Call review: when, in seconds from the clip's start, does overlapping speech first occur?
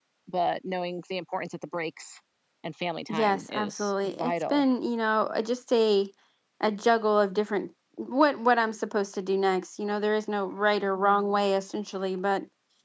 3.1 s

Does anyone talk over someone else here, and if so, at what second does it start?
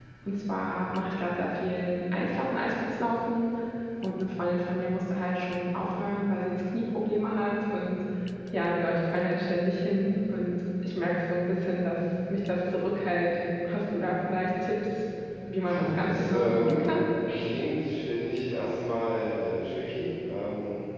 15.6 s

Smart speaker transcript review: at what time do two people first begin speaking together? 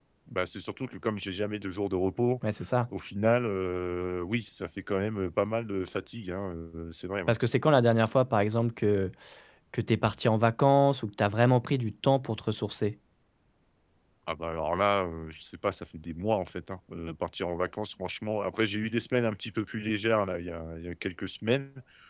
none

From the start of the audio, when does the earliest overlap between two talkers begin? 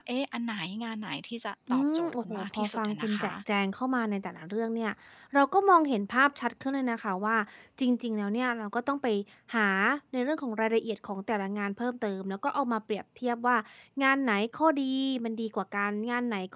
1.7 s

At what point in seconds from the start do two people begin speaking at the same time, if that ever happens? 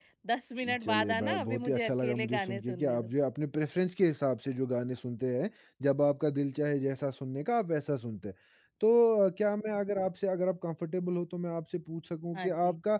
0.8 s

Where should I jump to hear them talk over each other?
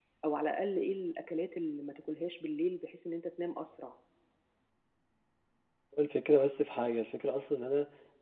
none

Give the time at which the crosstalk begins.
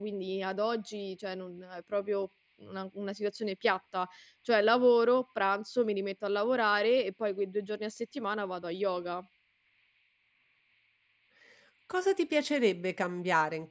none

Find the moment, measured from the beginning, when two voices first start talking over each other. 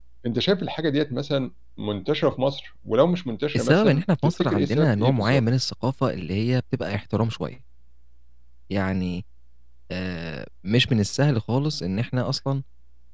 3.5 s

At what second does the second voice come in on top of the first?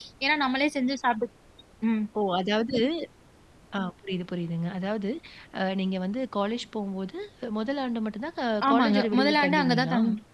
8.6 s

